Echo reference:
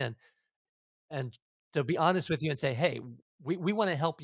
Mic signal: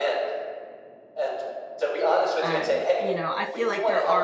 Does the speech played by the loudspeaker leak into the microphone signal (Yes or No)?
Yes